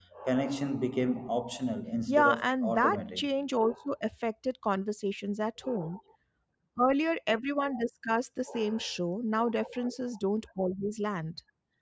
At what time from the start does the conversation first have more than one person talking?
2.1 s

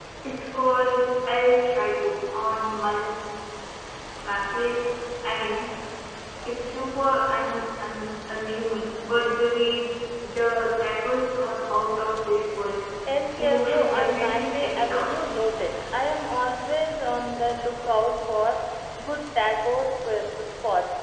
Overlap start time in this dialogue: 13.4 s

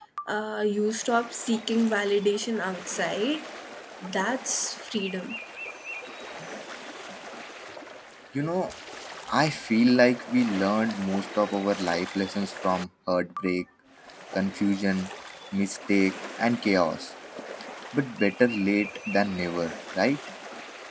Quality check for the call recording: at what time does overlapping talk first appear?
none

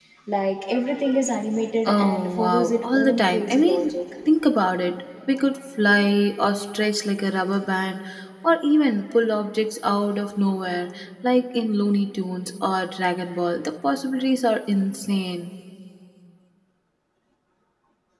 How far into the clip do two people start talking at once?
1.9 s

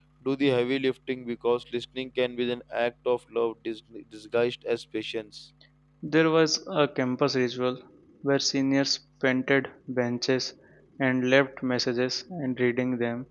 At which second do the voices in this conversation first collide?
none

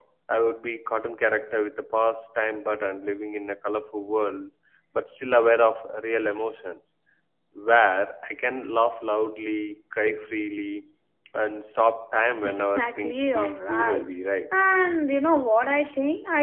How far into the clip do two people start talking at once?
12.4 s

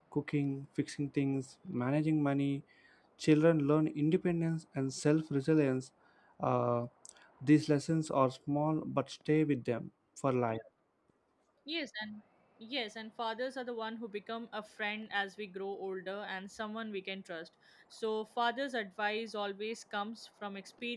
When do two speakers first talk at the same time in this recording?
none

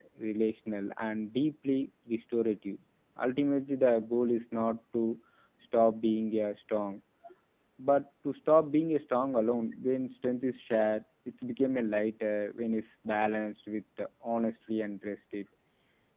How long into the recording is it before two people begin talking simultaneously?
none

